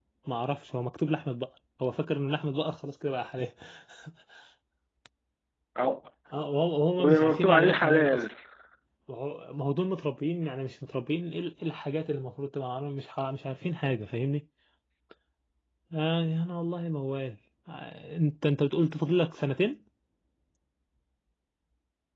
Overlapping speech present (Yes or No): Yes